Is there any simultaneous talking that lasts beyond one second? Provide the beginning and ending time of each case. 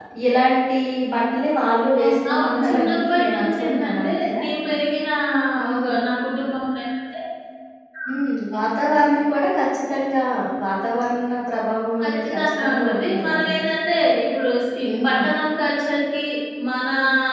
2.0-4.4, 12.0-13.7

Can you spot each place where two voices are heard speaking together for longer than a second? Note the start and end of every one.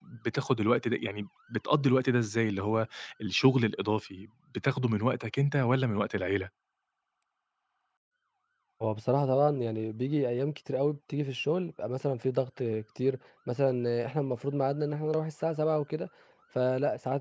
none

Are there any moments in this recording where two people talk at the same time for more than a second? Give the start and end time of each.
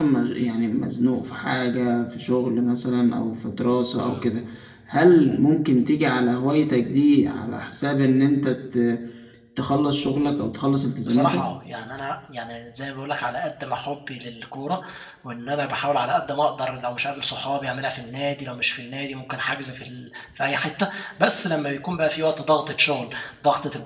none

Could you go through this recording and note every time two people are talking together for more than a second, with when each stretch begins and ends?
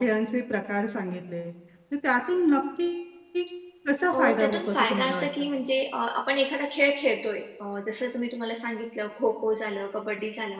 4.1-5.5

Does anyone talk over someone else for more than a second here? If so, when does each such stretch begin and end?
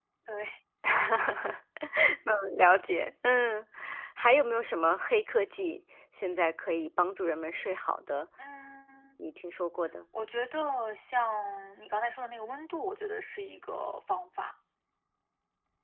none

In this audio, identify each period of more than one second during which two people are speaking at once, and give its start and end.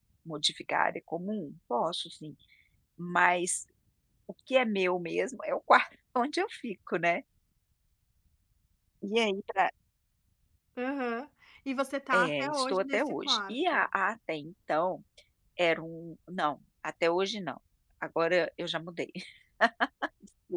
12.1-13.8

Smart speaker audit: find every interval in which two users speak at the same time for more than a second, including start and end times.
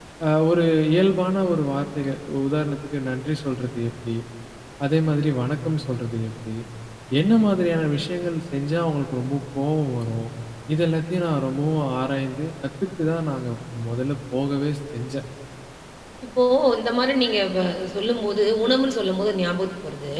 none

